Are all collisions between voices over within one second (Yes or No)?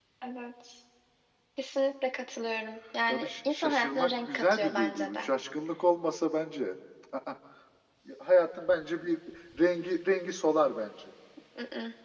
No